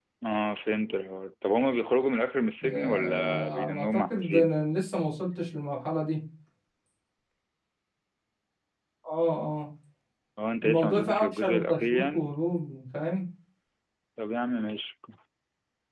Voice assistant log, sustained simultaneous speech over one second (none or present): present